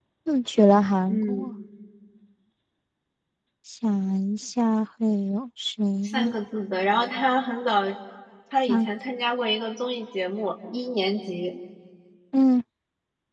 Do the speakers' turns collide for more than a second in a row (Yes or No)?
No